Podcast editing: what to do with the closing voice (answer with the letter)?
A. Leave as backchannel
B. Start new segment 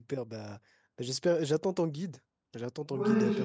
B